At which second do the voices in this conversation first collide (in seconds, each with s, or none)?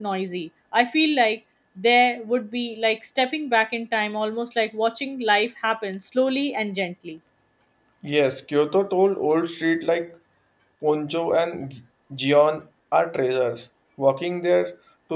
none